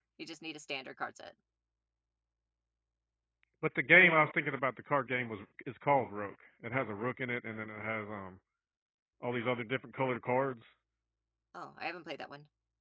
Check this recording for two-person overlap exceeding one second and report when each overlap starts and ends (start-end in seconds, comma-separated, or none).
none